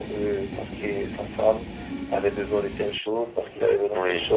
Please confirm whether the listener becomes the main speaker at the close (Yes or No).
Yes